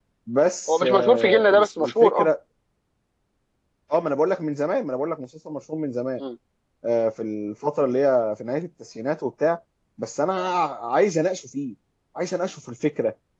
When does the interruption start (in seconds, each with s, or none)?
0.7 s